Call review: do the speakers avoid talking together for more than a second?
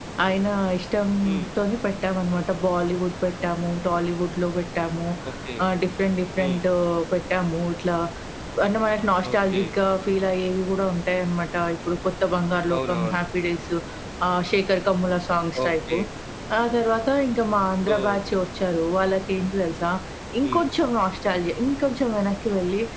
Yes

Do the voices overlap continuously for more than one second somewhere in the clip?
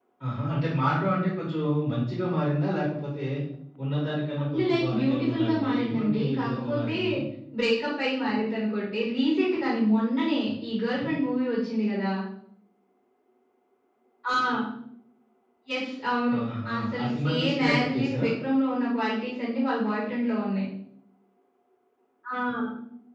Yes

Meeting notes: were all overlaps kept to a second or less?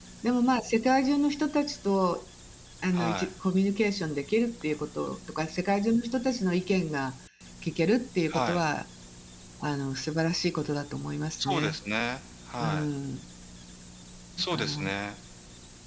Yes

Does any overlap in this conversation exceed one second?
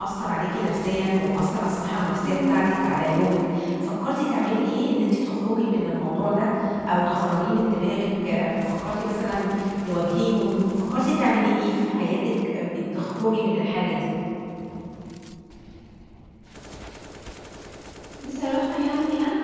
No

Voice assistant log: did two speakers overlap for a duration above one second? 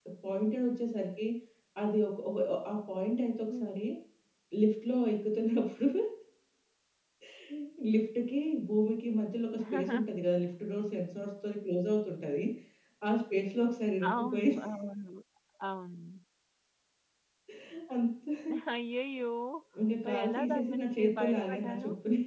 Yes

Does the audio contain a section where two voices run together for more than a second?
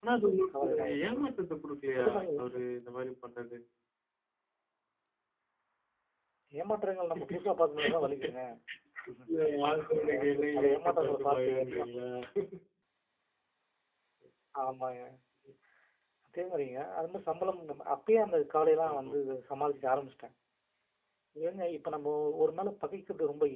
Yes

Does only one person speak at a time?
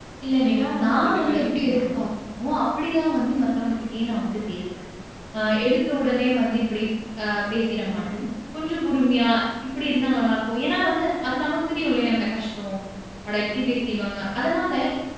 No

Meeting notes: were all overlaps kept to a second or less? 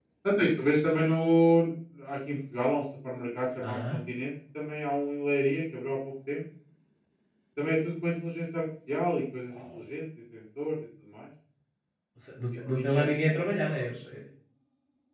No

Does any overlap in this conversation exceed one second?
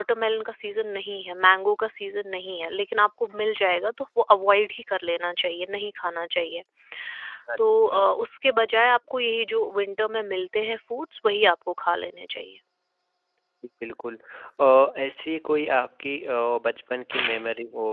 No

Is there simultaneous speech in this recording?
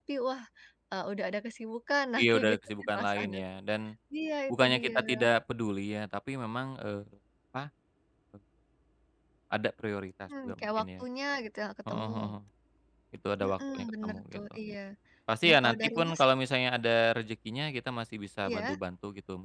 Yes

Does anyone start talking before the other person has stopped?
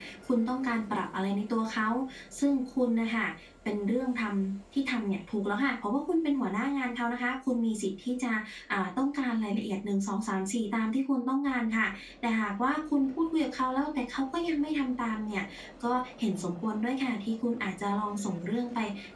No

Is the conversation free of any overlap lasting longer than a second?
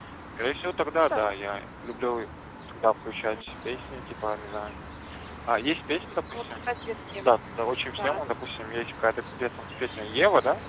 Yes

